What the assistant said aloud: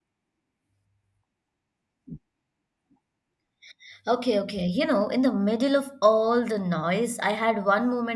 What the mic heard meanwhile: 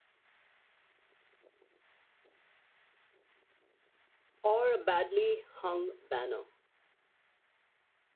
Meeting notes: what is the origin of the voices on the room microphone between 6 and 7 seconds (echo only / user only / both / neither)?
user only